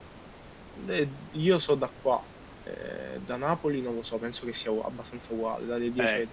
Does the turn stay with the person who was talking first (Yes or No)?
No